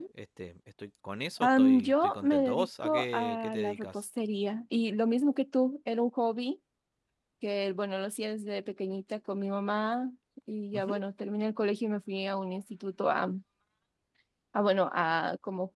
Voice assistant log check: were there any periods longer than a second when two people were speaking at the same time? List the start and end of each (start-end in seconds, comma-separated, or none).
1.4-4.0